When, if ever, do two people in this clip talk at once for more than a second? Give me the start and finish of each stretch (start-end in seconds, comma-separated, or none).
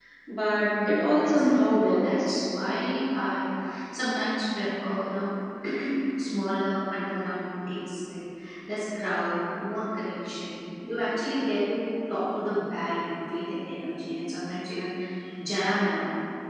0.6-2.3